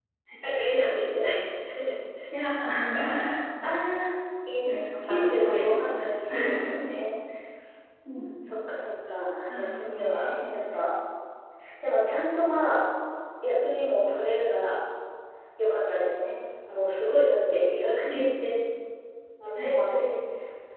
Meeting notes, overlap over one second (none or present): present